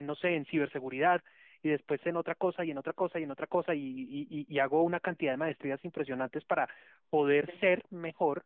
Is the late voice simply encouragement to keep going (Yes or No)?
Yes